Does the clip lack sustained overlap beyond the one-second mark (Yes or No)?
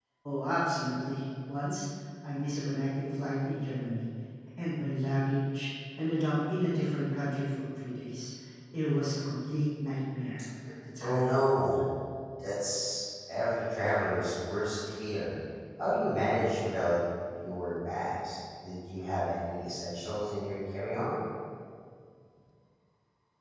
Yes